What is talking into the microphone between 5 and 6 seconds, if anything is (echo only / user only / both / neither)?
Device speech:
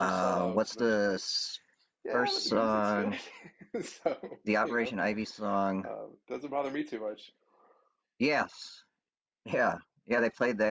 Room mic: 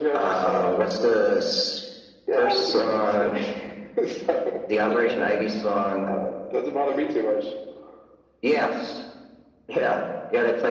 echo only